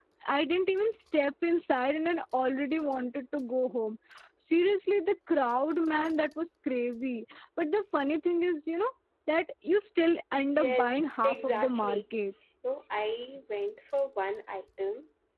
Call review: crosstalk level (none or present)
present